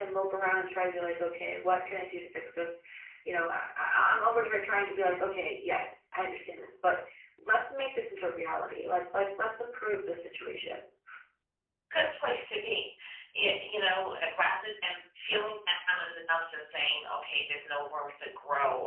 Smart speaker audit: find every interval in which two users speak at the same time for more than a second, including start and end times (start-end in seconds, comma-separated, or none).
none